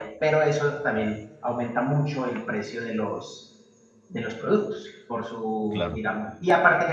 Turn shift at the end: No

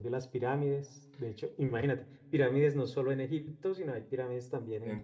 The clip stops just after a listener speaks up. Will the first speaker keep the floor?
No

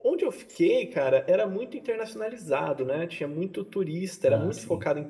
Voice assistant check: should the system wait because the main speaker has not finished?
Yes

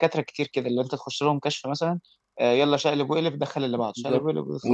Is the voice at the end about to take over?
Yes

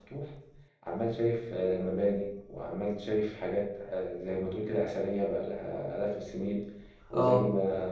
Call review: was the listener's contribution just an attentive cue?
Yes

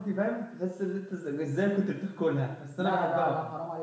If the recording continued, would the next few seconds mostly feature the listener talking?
Yes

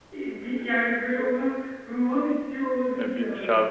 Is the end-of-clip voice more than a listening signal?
Yes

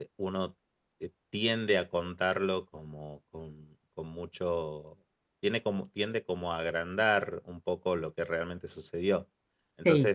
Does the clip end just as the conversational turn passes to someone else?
No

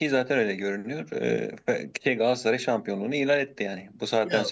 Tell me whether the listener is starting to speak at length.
Yes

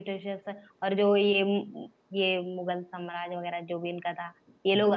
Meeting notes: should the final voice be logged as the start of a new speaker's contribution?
No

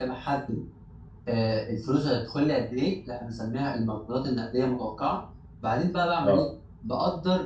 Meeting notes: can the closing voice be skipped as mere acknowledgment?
Yes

